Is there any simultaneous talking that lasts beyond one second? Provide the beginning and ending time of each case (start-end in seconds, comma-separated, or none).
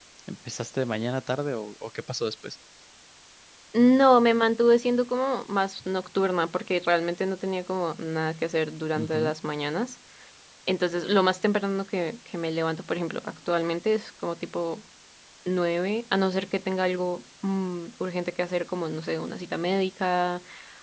none